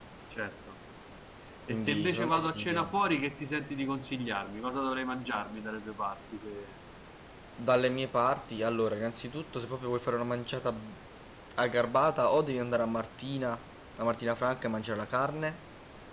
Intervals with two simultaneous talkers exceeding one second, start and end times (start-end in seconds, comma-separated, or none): 1.7-2.9